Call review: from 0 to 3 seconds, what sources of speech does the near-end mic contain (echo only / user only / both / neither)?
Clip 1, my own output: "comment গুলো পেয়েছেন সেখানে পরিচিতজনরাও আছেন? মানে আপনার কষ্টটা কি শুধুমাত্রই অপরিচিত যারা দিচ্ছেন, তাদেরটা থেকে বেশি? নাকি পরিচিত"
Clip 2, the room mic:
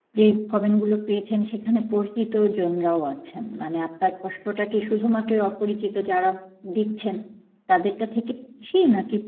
echo only